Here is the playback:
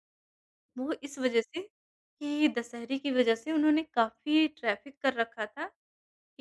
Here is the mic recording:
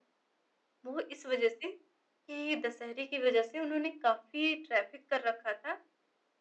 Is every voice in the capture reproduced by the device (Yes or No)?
Yes